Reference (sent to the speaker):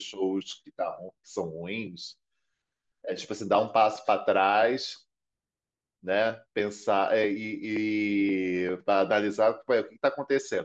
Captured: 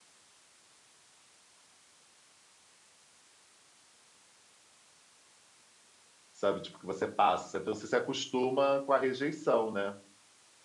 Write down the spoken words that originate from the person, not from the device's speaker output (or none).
sabe? Tipo, que você passa, sabe? Então, Você se acostuma com a rejeição, né?